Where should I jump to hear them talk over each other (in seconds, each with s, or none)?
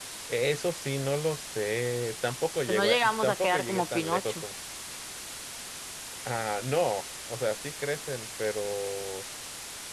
2.7 s